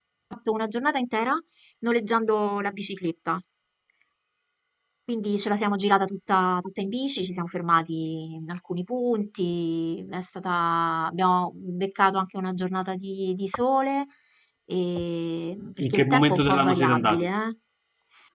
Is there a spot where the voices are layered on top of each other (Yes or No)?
Yes